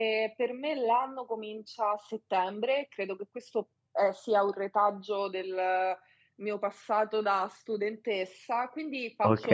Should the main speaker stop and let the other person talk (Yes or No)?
No